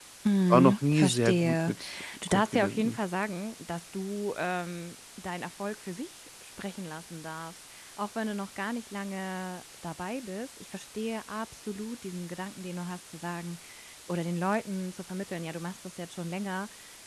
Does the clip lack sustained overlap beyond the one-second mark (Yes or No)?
No